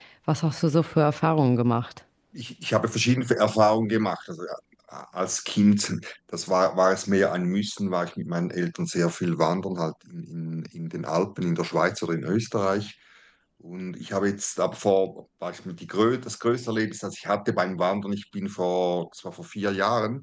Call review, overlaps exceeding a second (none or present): none